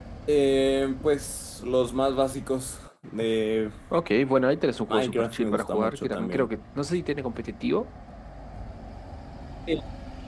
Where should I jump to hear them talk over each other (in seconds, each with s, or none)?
4.9 s